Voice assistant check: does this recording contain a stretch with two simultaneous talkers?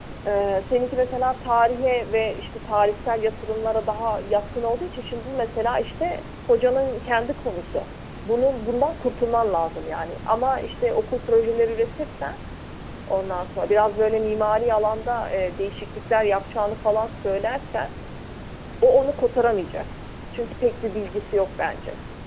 No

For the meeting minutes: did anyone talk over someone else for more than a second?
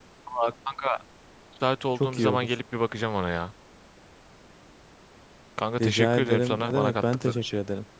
Yes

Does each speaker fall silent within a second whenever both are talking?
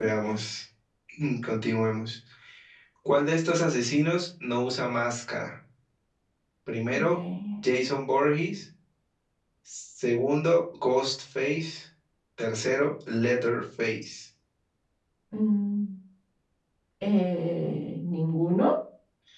Yes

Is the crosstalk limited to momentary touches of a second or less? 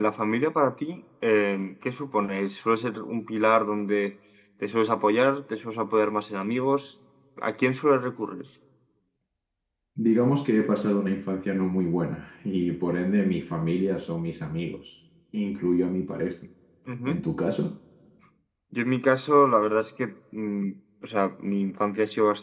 Yes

